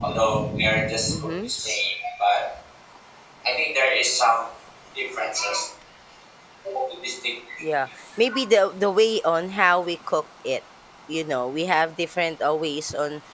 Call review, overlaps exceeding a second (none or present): none